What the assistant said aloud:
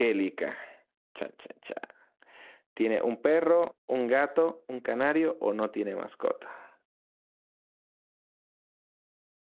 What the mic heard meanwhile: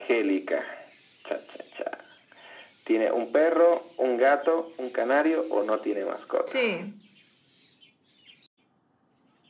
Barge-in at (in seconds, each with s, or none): 6.5 s